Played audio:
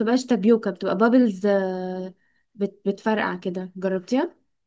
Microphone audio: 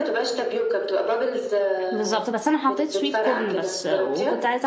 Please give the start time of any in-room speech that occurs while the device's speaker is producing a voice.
2 s

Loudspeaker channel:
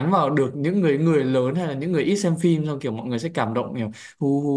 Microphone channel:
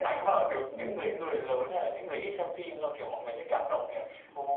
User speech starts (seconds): 1 s

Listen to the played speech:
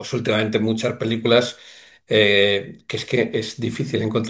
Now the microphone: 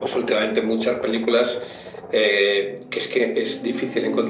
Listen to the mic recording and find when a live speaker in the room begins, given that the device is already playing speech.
none

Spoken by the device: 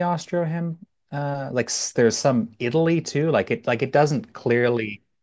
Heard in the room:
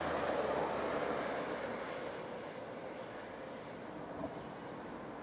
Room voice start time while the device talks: none

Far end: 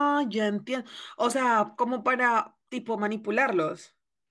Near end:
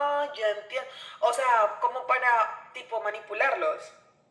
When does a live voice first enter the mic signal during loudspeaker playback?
none

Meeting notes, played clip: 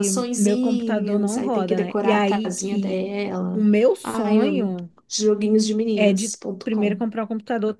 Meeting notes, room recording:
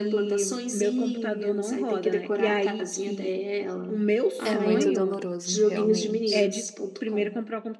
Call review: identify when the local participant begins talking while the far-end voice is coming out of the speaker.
4 s

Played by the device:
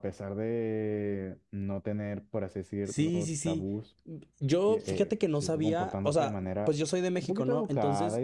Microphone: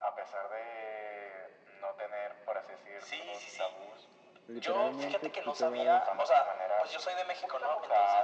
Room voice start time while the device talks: 4 s

